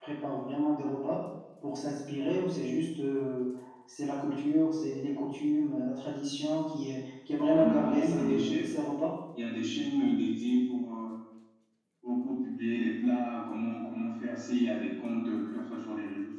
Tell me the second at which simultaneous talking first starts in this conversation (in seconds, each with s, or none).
7.3 s